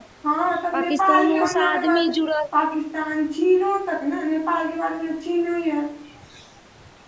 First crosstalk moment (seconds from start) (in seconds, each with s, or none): 0.8 s